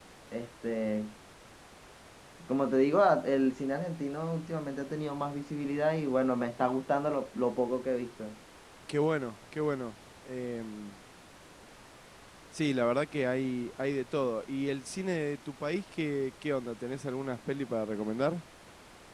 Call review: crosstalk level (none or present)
none